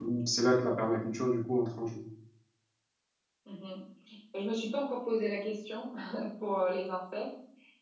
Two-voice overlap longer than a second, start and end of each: none

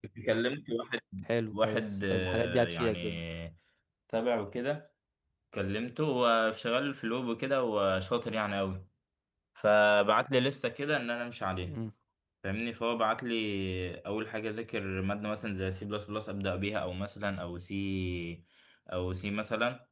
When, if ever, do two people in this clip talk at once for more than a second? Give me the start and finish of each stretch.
1.5-3.2

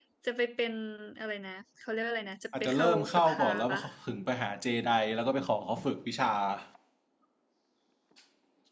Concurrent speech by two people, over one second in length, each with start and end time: 2.6-3.8

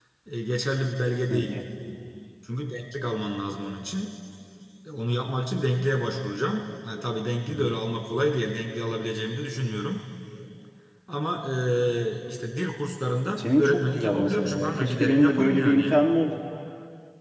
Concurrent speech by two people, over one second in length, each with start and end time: 13.4-16.0

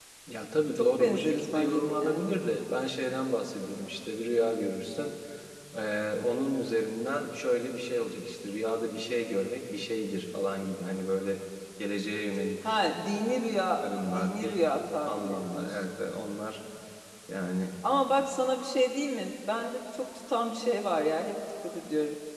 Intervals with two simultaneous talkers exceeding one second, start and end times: 0.7-2.4, 14.1-15.8

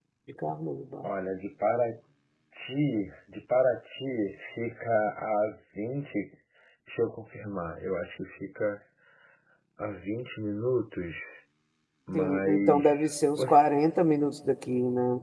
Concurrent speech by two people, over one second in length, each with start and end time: 12.1-14.0

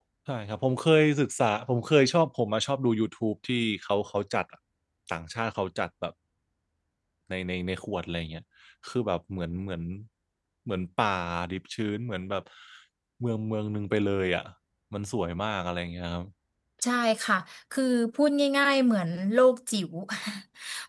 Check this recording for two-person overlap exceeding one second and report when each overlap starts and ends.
none

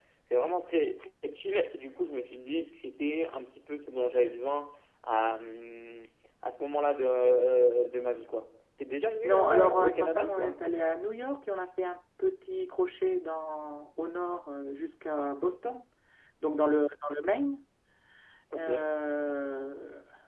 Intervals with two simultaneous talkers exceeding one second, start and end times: 9.2-10.6

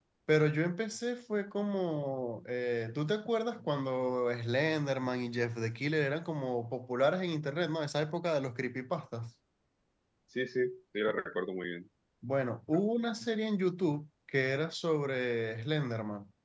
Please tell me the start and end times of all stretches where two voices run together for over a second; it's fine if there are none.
none

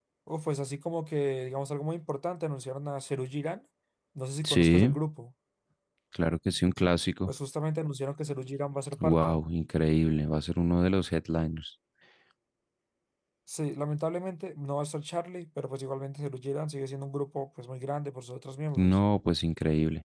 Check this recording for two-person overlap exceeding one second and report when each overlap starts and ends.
none

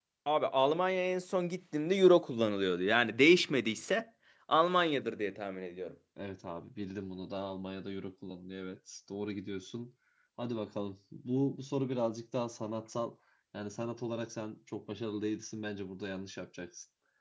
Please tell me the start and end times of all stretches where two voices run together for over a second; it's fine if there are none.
none

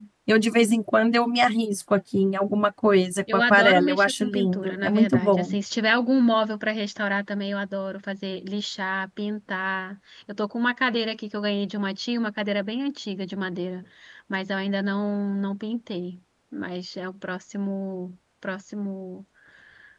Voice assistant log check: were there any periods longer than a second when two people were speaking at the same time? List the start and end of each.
3.3-5.5

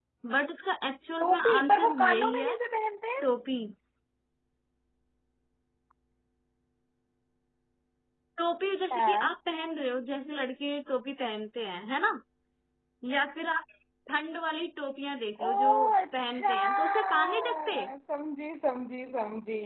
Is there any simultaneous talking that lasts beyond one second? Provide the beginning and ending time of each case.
1.2-2.6, 16.2-17.8

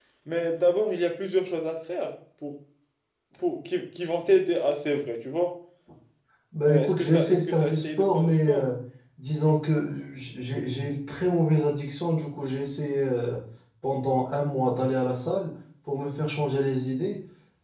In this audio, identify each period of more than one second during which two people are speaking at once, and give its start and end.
6.7-8.7

